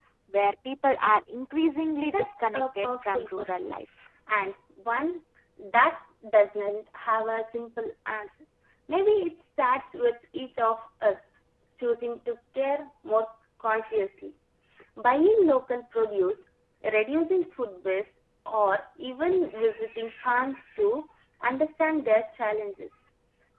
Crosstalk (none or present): present